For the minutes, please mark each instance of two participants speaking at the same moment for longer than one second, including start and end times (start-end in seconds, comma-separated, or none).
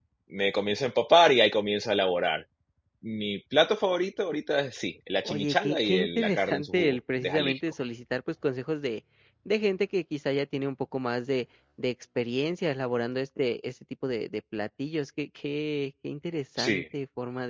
5.2-7.6